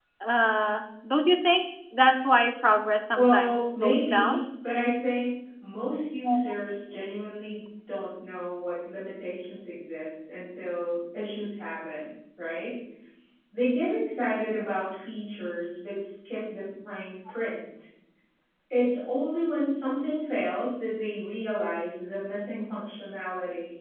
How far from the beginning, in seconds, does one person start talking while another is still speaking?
3 s

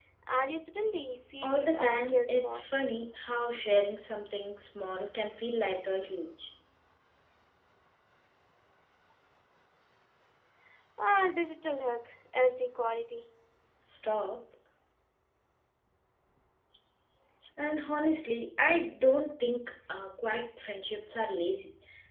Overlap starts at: 1 s

